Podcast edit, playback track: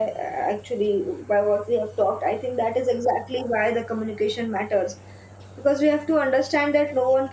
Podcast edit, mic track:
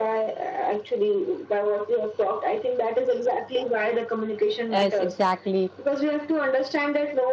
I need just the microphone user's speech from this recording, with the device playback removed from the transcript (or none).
yes exactly